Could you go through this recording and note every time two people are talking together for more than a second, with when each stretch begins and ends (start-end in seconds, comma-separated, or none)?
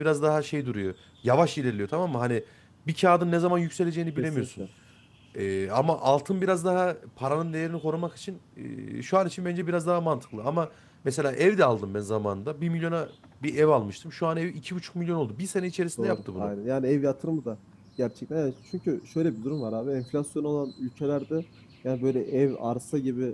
none